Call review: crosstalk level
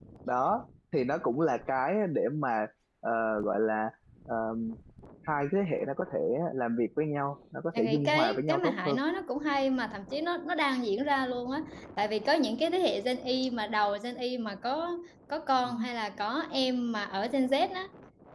present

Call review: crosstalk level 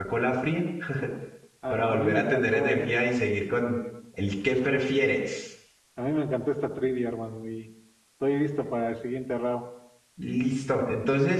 present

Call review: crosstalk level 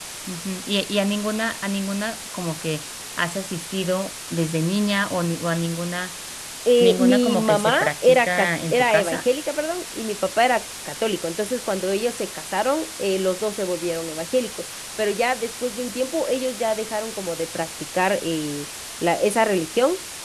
present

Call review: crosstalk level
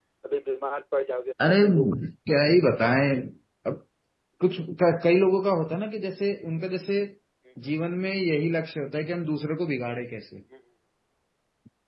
none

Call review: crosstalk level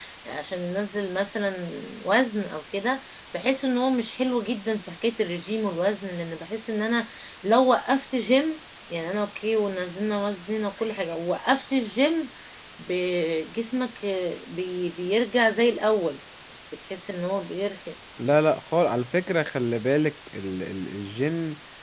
none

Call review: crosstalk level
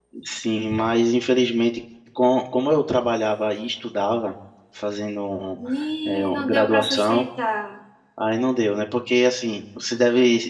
present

